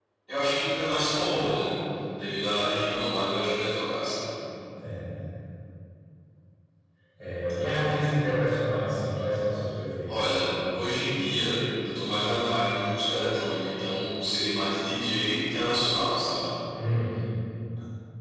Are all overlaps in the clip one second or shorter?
Yes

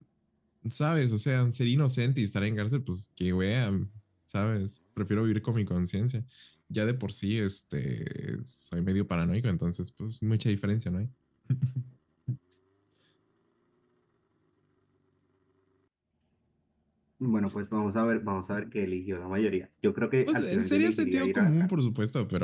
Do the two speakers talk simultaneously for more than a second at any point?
Yes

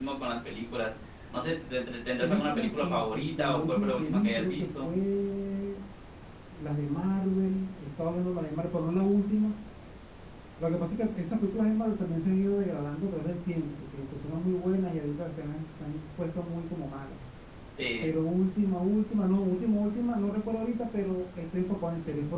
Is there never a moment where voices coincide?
No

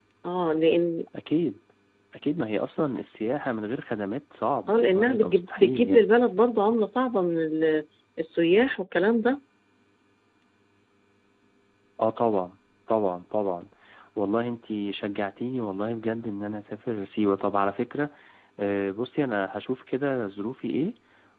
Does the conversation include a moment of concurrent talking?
Yes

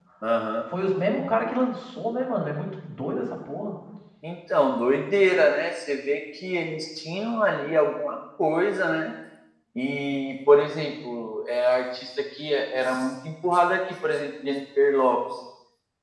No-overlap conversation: Yes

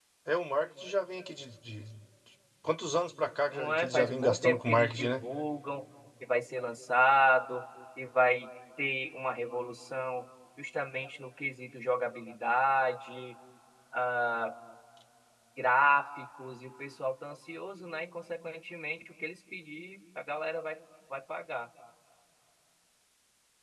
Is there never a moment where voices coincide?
No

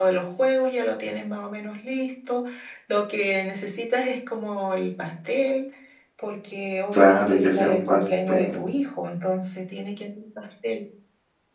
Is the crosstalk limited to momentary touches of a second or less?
No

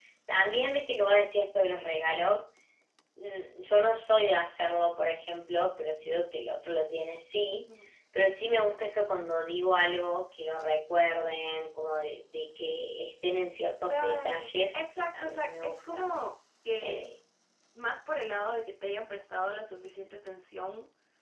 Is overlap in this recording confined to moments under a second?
No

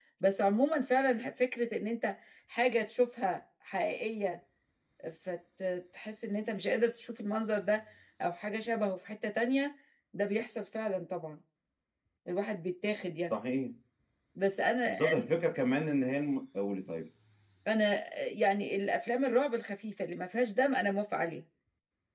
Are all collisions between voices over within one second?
Yes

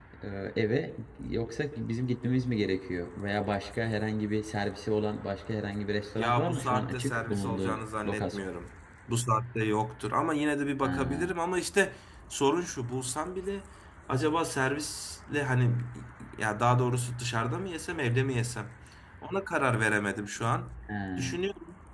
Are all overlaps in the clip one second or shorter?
No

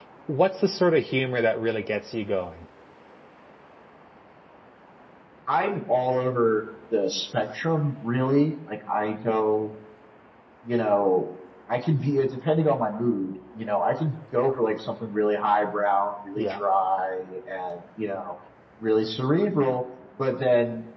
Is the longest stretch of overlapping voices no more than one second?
Yes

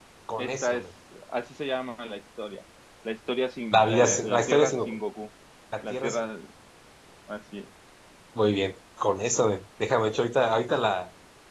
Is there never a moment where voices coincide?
No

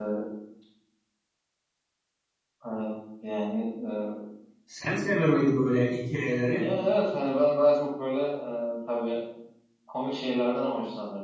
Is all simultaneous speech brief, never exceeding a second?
Yes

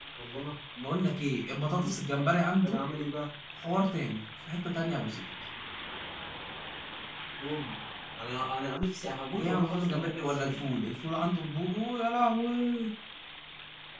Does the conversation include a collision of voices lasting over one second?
Yes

